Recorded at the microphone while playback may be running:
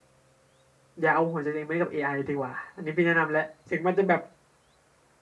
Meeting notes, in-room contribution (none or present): present